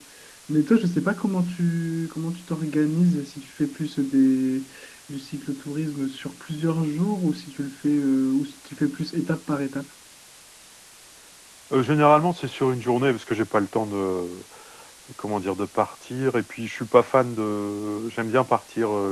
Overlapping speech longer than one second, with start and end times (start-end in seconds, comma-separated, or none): none